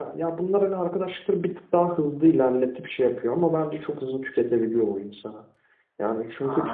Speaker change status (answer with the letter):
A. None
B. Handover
A